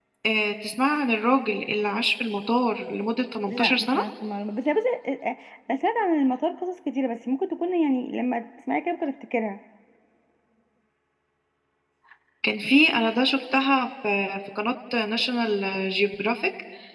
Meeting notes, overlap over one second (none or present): none